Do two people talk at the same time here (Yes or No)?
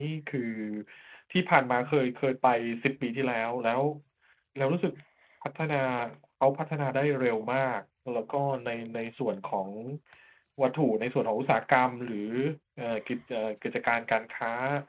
No